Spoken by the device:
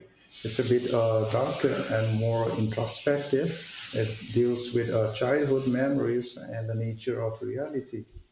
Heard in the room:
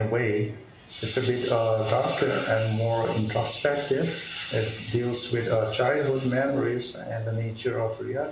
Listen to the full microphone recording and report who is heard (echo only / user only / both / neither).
echo only